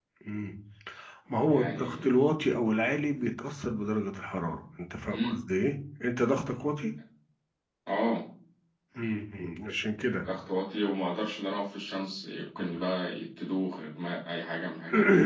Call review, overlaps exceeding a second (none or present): none